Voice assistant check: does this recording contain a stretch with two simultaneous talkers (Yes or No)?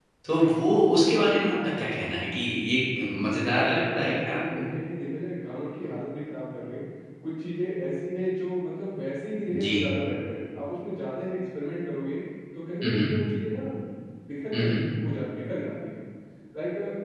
Yes